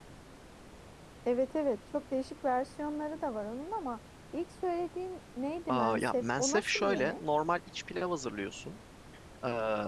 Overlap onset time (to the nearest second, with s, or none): 6 s